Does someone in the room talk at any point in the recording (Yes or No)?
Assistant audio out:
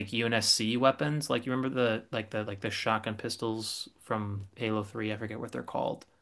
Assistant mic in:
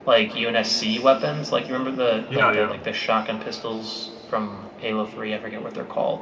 Yes